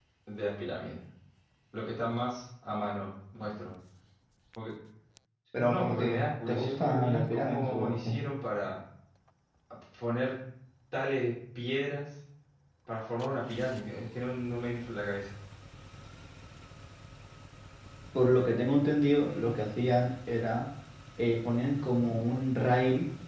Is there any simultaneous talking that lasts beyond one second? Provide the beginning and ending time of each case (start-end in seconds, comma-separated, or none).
5.6-8.1